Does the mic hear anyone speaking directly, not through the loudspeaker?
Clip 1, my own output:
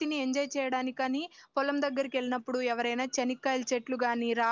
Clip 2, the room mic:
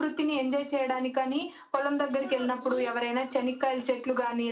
Yes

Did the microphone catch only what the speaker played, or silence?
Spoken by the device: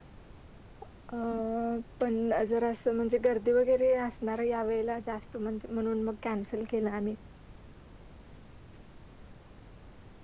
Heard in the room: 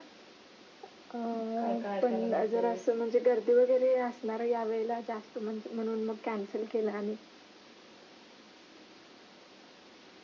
No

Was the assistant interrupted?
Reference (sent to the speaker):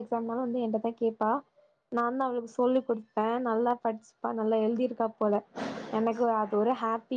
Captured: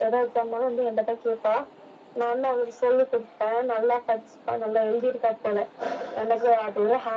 No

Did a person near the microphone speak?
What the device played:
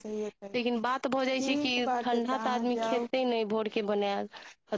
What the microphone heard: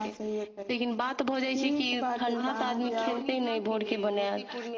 Yes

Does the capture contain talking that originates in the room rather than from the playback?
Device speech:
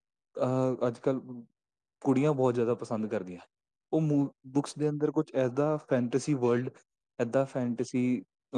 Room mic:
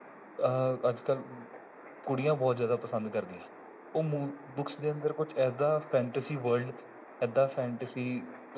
No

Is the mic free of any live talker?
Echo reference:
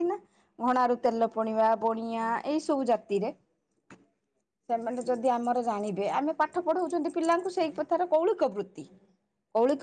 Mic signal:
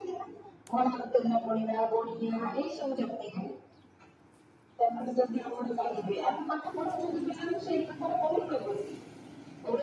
Yes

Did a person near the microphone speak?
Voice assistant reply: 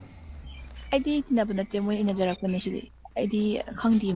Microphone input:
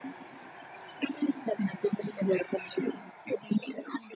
No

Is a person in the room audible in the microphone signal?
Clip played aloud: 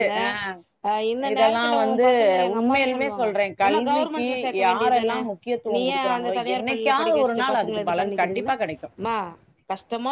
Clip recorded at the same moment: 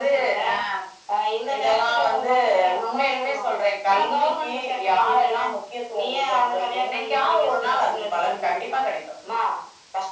No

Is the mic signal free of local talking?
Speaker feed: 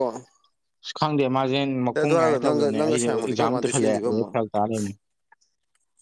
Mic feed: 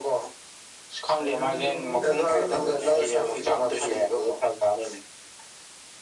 No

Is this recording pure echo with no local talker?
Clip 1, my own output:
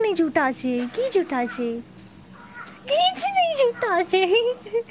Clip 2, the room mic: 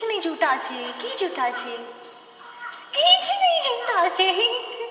Yes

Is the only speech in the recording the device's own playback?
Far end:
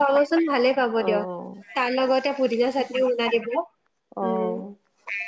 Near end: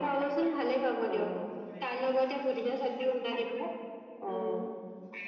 Yes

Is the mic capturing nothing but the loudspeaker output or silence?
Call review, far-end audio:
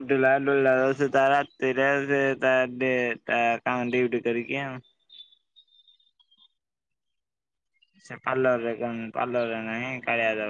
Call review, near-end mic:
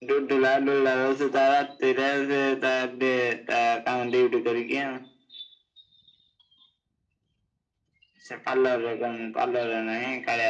Yes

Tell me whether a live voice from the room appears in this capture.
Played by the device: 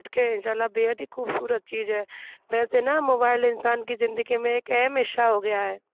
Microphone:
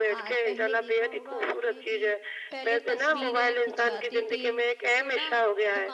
Yes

